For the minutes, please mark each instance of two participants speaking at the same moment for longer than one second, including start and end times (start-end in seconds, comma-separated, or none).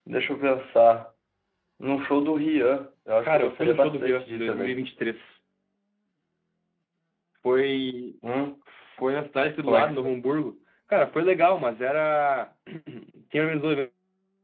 3.3-4.8